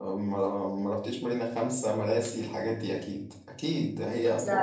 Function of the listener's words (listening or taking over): listening